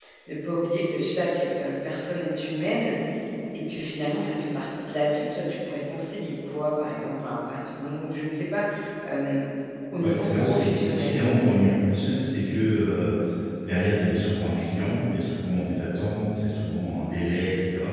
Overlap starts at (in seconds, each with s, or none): 10.0 s